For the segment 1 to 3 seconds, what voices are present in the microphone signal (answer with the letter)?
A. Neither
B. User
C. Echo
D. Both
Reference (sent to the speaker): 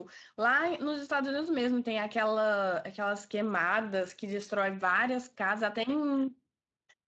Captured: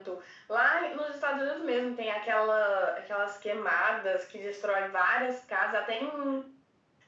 C